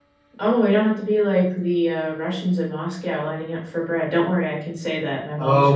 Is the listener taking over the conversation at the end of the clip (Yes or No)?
Yes